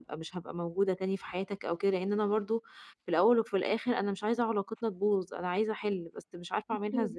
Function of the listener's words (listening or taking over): taking over